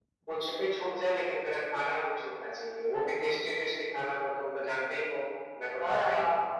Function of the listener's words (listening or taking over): taking over